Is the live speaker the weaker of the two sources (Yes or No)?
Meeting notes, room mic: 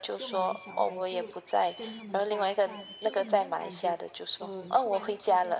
Yes